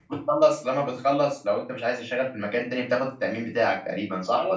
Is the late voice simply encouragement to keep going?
No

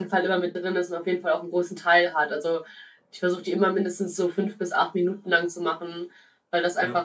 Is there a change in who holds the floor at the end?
No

